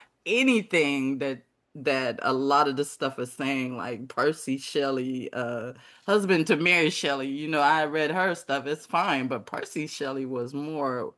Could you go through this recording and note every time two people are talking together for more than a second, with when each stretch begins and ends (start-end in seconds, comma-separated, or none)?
none